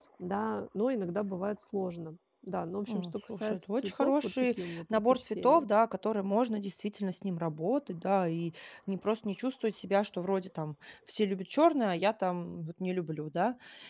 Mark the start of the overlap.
2.9 s

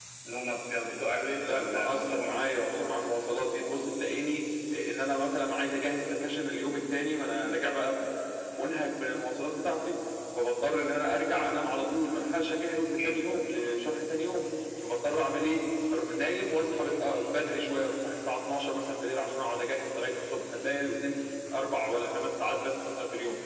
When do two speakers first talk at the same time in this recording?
1.3 s

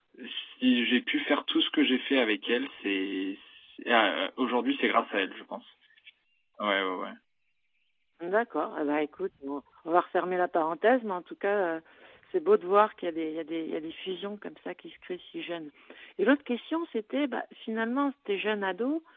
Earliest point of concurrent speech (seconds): none

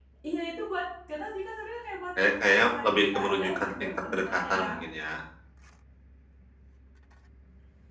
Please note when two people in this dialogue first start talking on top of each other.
2.2 s

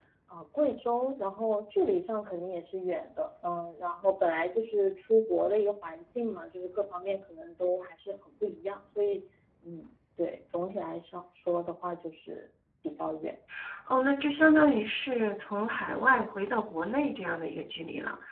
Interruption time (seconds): none

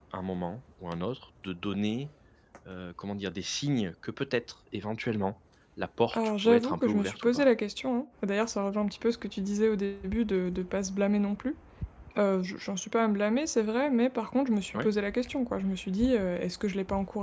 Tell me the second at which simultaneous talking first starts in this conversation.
6.1 s

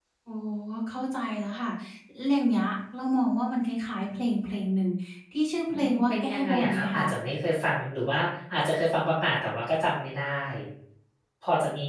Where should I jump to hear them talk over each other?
5.7 s

